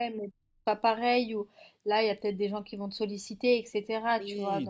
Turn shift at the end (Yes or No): Yes